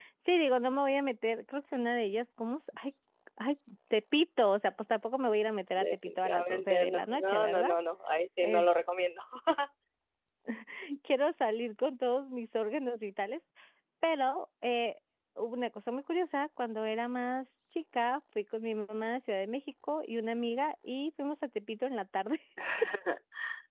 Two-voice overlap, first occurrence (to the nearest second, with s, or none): 6 s